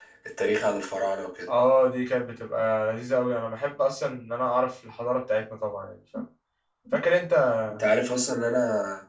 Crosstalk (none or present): none